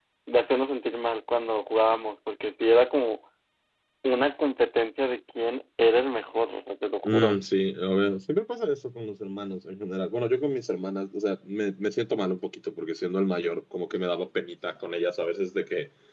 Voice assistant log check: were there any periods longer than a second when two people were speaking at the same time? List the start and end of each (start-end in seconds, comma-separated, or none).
none